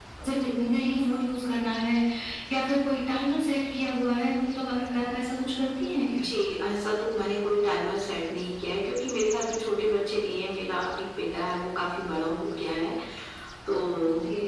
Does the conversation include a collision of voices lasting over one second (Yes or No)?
No